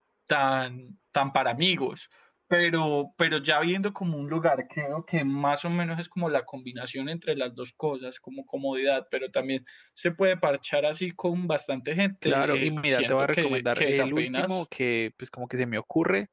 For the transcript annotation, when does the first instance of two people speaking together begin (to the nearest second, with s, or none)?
12 s